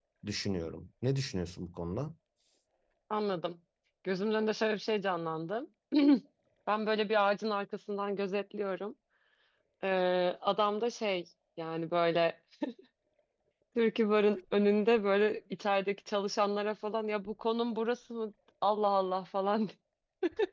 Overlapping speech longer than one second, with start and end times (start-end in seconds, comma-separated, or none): none